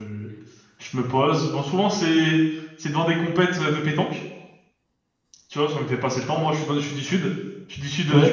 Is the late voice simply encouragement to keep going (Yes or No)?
Yes